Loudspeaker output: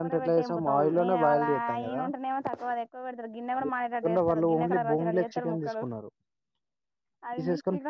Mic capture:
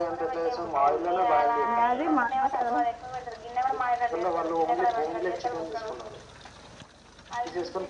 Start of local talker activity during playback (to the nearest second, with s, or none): 2 s